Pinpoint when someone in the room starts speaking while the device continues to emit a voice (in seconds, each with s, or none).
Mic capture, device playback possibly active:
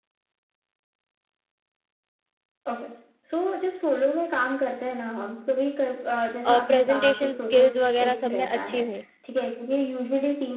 6.4 s